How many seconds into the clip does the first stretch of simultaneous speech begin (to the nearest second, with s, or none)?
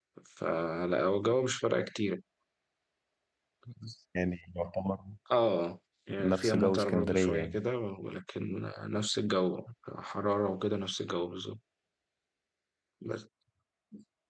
6 s